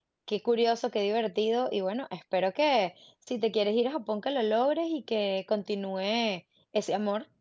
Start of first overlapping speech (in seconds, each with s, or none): none